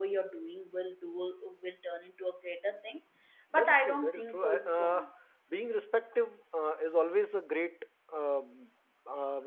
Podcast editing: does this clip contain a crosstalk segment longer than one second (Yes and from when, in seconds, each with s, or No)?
Yes, from 3.6 s